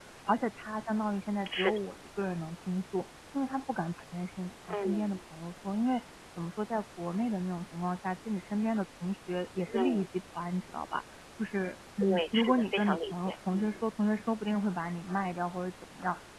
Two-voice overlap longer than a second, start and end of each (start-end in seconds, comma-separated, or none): 12.0-13.8